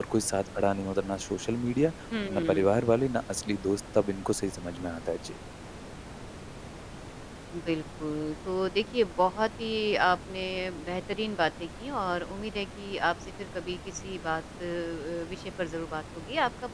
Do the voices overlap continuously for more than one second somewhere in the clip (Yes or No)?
No